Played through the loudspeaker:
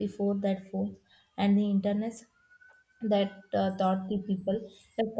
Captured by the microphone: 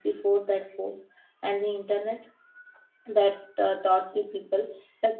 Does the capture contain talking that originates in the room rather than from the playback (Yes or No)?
No